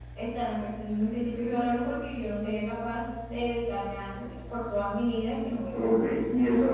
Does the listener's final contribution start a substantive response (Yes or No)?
Yes